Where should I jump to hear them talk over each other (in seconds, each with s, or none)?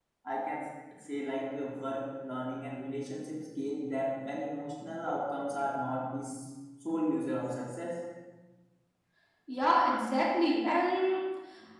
none